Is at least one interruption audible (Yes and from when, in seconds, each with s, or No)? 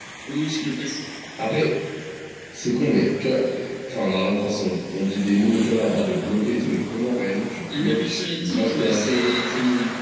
Yes, from 7.7 s